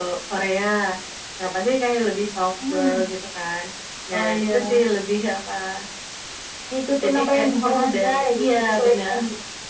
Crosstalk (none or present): present